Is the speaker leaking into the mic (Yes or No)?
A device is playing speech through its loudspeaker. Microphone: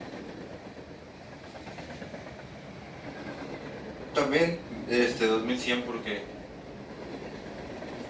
No